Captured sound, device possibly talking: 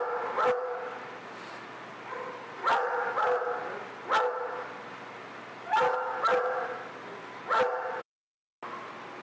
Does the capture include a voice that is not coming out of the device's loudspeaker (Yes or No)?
No